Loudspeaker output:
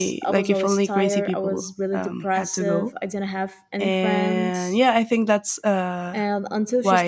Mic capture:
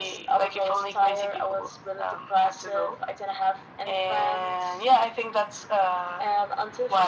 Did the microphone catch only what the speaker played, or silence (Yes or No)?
Yes